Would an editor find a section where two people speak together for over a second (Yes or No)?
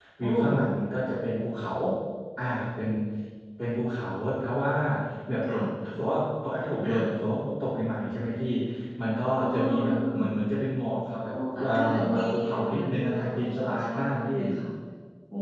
Yes